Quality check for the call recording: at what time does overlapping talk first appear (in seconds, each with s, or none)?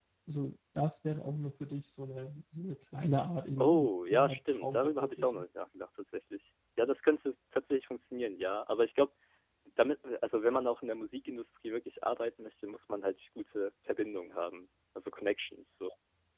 3.6 s